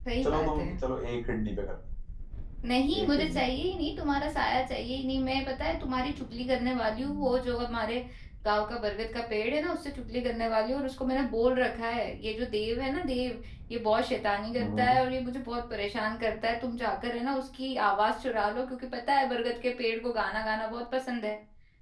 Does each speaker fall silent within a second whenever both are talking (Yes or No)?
Yes